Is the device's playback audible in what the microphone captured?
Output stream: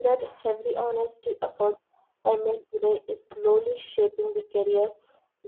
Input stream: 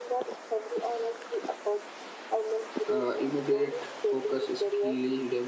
Yes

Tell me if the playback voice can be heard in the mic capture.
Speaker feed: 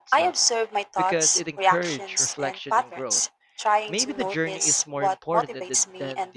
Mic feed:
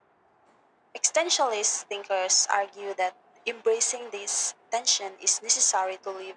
No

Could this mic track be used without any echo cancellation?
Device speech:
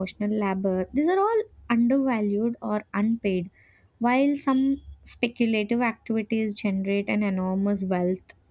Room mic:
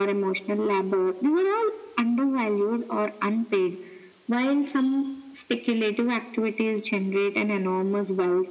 No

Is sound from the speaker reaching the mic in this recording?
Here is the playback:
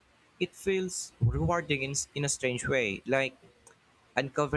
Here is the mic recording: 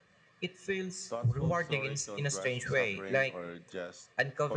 Yes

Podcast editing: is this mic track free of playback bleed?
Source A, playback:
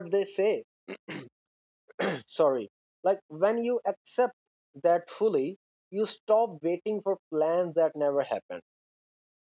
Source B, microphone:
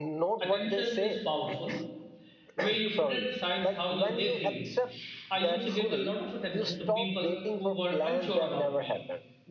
No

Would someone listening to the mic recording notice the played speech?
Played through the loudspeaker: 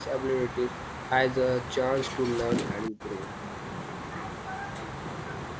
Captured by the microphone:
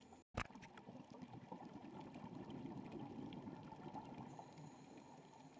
No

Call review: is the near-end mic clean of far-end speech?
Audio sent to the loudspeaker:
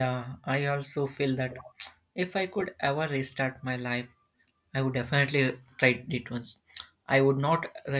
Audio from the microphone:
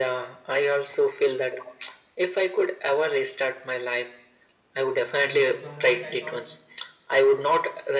No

